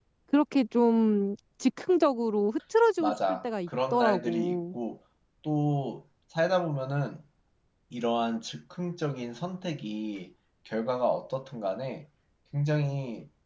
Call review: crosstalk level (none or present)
present